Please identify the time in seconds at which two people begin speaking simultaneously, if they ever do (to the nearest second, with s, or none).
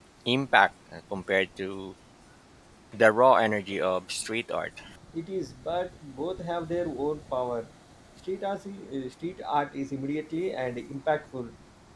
none